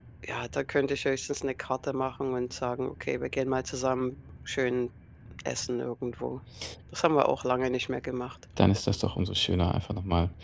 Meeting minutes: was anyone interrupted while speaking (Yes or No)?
No